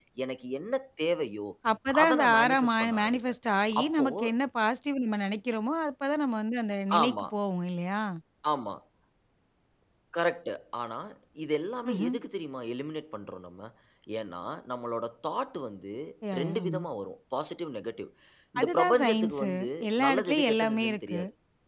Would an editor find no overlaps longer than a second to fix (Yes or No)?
No